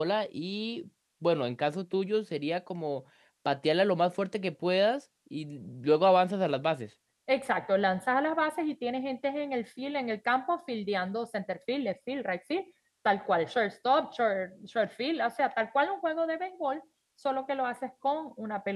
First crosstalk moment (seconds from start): none

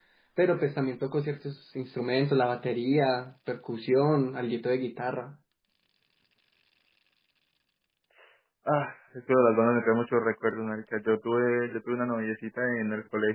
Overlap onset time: none

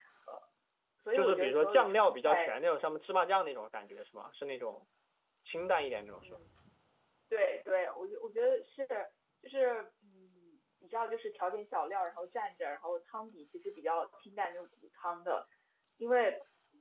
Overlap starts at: 1.1 s

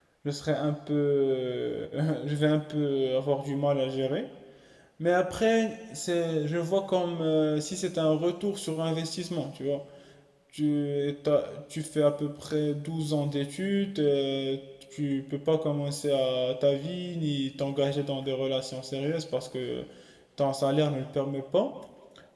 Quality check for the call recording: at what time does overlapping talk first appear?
none

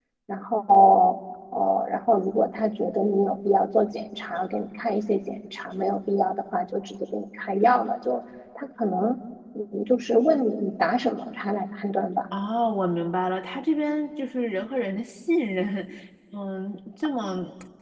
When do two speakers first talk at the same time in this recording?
none

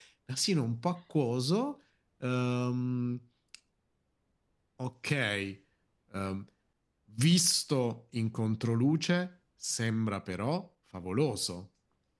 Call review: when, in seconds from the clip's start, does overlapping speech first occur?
none

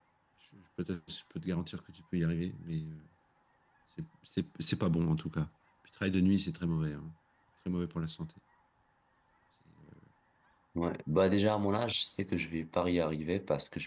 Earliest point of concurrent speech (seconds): none

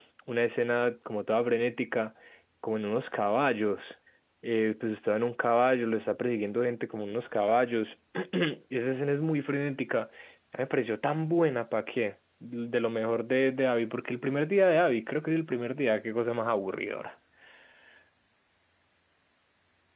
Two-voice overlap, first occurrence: none

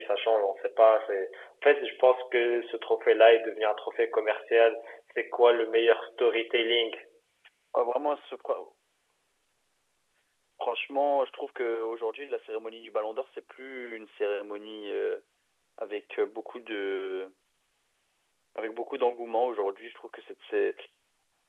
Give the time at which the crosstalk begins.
none

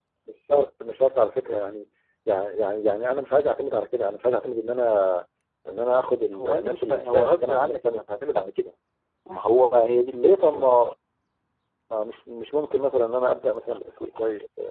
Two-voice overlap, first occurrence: 6.4 s

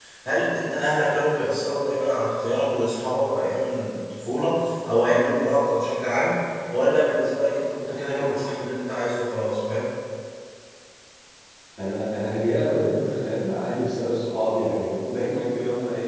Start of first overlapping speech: none

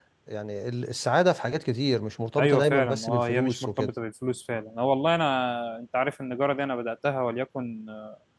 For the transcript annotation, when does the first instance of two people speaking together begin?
2.4 s

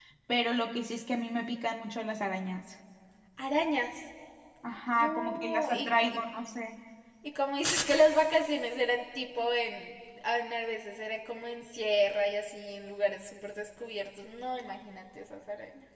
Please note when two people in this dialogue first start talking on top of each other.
4.9 s

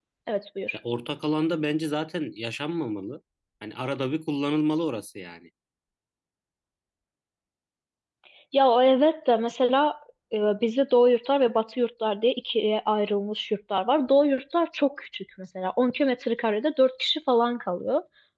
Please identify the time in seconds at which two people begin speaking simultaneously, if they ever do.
none

